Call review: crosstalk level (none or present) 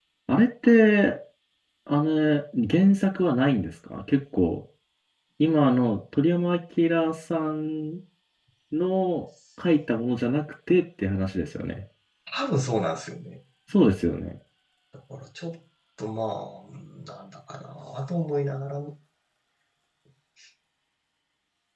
none